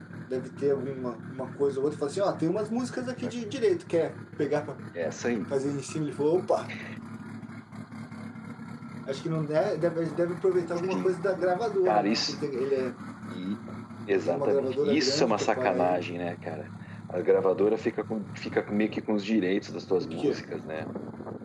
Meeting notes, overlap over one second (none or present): present